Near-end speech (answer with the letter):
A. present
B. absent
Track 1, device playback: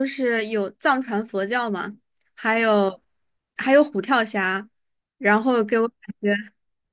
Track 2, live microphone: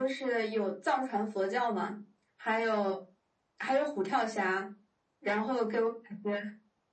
B